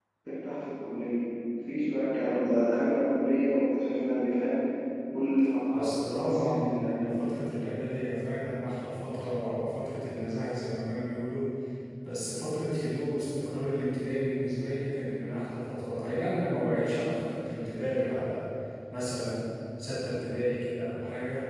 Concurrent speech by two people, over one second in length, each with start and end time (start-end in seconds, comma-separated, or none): 5.7-7.1